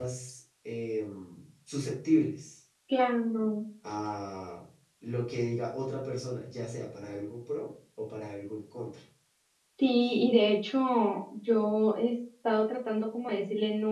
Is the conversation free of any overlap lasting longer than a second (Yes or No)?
Yes